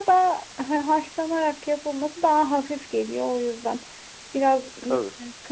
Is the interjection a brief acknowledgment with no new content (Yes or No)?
Yes